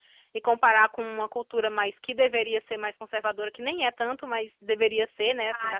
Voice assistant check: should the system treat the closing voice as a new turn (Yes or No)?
No